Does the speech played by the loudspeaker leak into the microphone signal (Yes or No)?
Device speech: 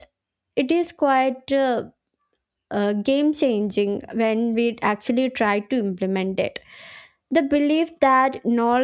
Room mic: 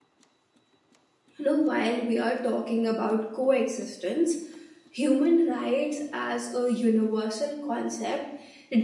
No